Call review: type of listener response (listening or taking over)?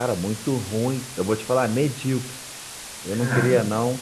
listening